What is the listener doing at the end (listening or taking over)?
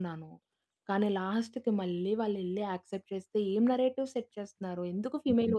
listening